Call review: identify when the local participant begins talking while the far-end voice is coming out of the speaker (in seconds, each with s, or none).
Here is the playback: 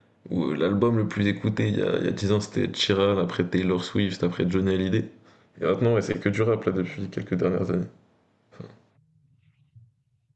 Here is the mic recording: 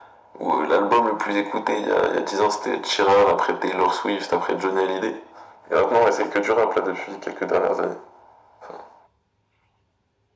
none